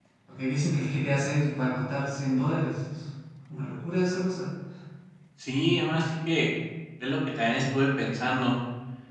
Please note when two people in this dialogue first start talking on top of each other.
none

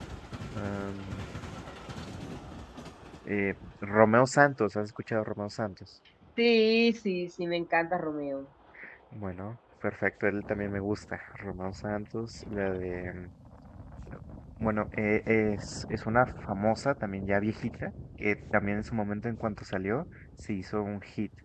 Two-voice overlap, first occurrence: none

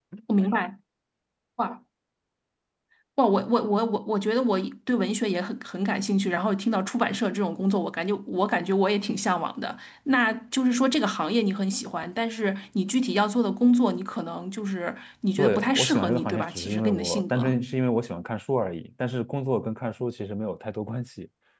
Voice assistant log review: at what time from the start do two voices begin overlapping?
15.4 s

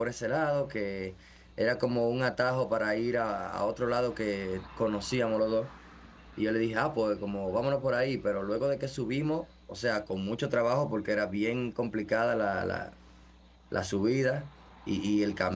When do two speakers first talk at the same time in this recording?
none

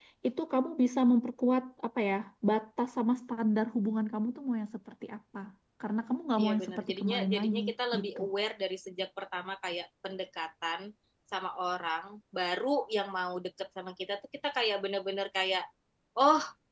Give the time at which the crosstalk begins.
6.4 s

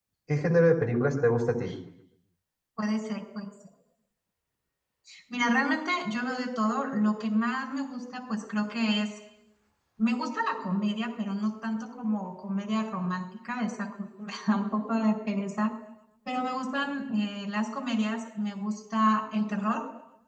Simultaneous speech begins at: none

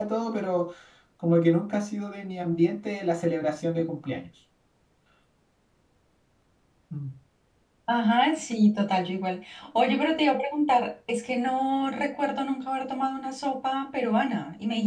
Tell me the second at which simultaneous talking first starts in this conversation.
none

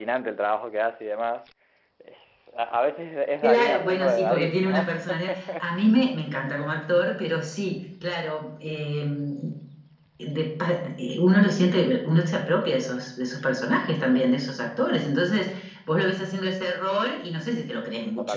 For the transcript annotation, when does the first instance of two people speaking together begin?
3.4 s

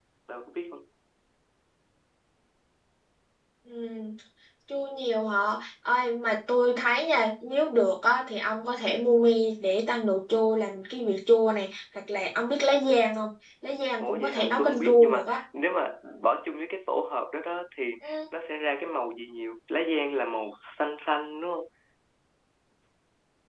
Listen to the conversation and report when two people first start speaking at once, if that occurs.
14.0 s

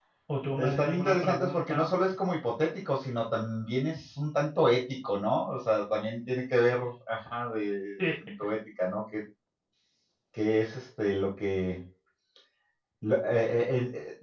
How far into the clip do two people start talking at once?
0.6 s

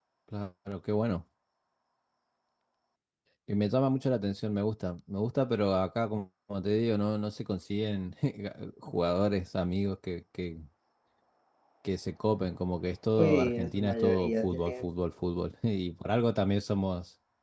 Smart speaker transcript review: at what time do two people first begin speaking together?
13.2 s

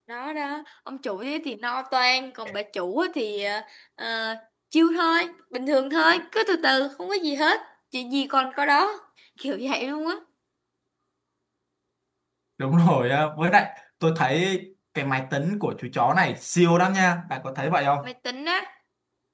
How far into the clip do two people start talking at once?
none

